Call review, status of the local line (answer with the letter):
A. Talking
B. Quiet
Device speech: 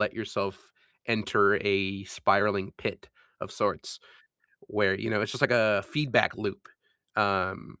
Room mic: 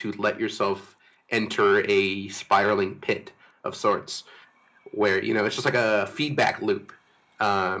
B